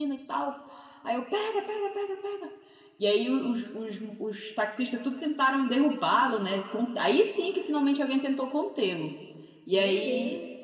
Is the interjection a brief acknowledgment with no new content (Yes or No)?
Yes